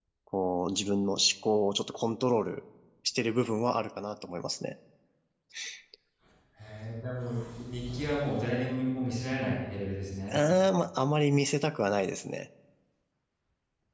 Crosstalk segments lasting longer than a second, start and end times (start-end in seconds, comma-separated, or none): none